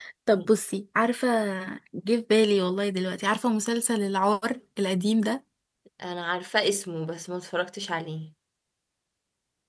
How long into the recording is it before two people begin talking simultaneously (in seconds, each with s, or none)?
none